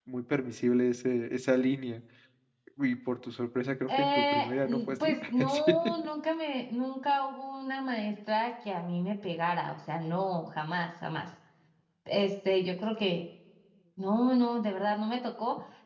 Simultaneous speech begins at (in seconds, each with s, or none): 3.9 s